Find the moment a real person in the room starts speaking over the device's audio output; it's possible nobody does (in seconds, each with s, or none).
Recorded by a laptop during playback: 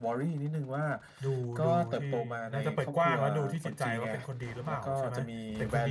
1.2 s